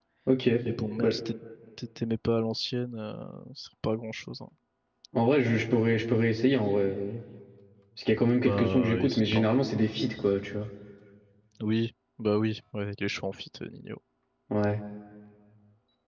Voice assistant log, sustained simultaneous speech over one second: present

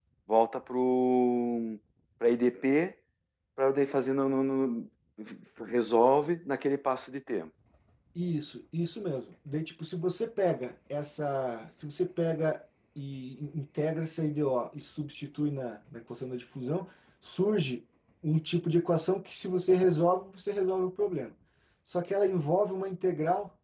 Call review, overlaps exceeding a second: none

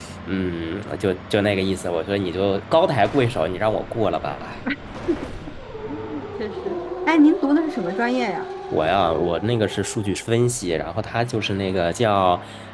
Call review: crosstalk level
none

